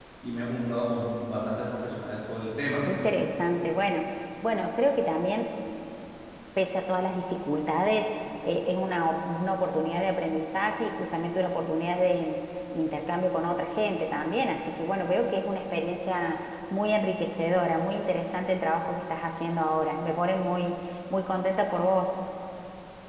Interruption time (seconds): none

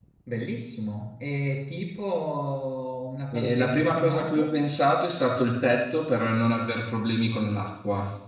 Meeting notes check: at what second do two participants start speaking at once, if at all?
3.3 s

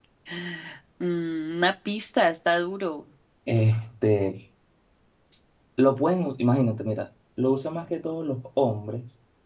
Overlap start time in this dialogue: none

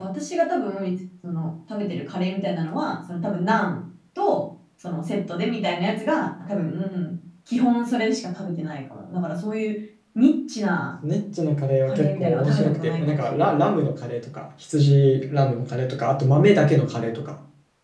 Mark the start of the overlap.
11.9 s

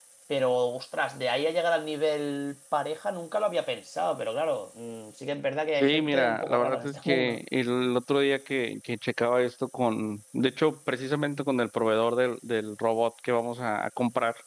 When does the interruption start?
5.8 s

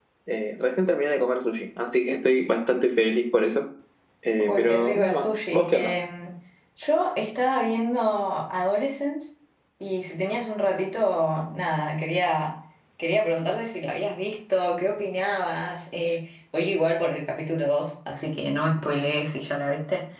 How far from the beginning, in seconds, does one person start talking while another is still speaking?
4.5 s

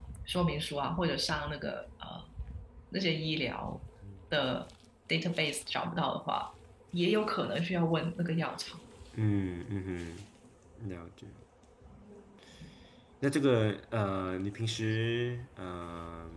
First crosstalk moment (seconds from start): none

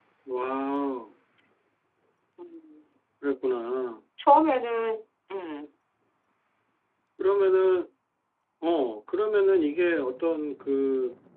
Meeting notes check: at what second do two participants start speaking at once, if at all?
none

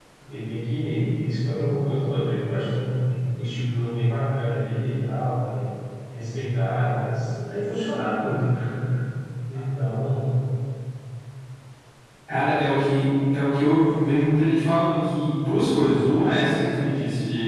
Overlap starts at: none

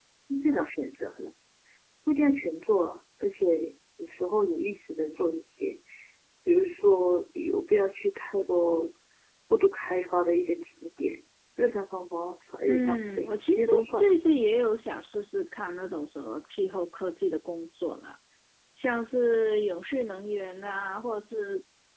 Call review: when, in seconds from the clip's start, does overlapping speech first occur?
12.7 s

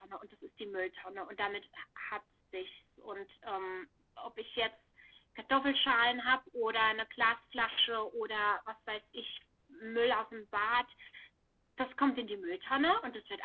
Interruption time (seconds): none

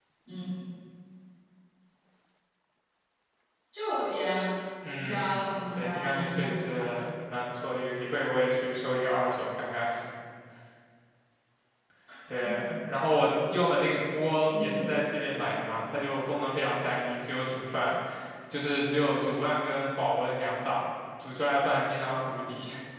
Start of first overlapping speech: 4.9 s

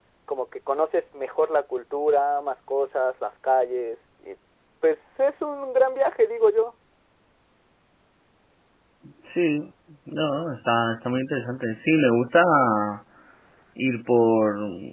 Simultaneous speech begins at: none

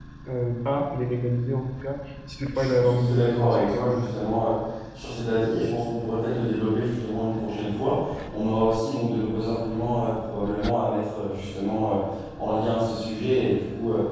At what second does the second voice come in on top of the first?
2.5 s

